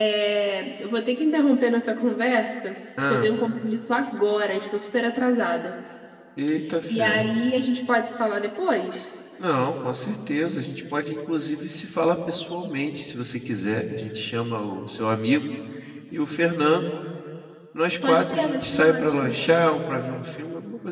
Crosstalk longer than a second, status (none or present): present